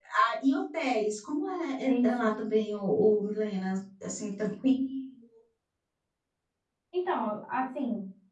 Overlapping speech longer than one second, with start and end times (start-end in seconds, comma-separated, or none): none